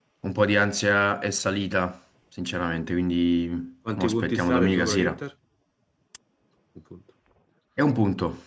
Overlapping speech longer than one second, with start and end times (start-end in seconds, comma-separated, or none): 4.0-5.2